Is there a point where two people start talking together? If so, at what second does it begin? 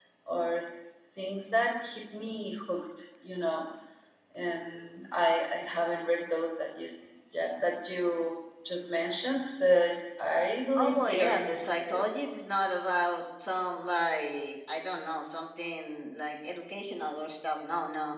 10.8 s

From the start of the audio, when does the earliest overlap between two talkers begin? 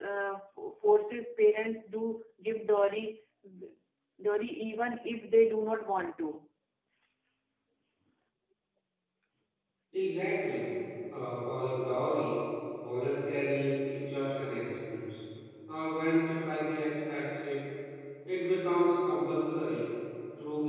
none

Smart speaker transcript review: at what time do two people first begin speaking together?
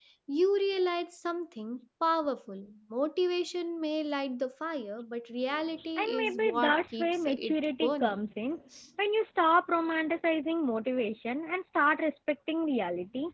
6.0 s

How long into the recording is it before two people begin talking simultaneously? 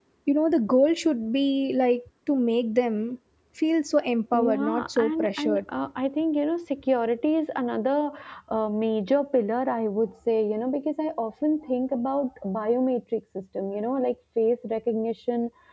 4.3 s

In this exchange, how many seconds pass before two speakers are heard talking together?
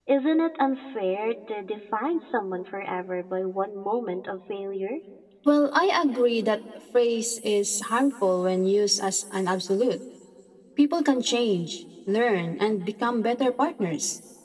none

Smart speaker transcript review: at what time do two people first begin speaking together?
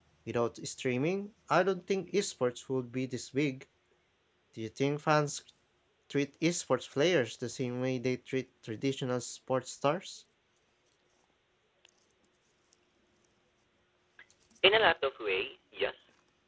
none

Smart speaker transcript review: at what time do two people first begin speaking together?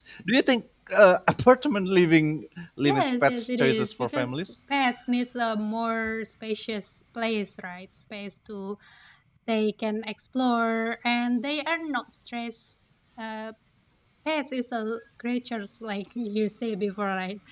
2.8 s

